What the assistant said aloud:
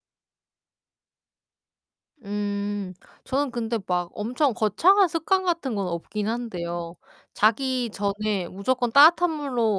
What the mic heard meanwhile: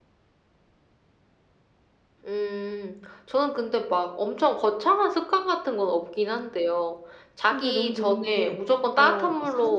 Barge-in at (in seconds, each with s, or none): 7.5 s